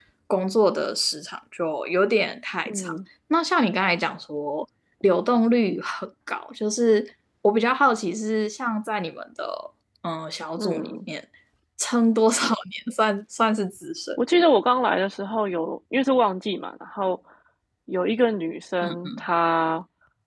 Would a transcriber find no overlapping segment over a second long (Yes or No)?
Yes